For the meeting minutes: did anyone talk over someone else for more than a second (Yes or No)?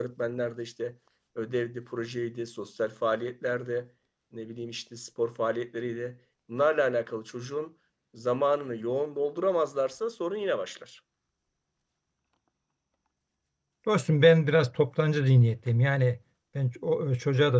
No